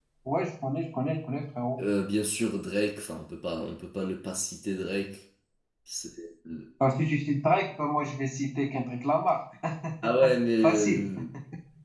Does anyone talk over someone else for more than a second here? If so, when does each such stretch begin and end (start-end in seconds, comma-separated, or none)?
none